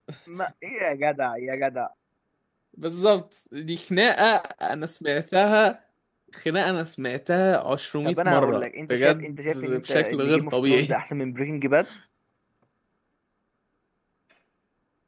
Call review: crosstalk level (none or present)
present